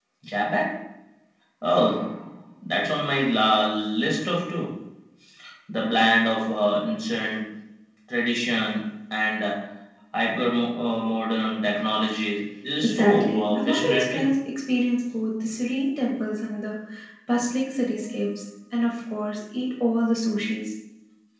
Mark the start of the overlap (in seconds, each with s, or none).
12.8 s